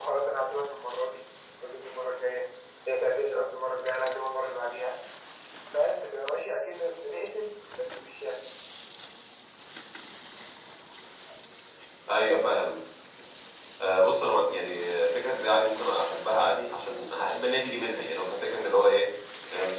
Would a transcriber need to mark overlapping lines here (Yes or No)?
No